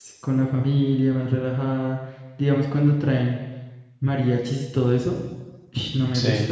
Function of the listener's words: listening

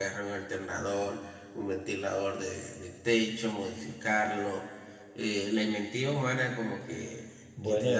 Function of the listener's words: listening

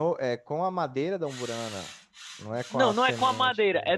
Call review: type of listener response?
taking over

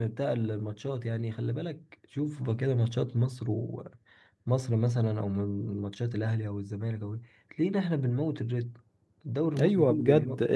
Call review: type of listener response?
taking over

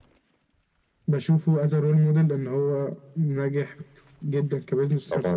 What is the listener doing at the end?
taking over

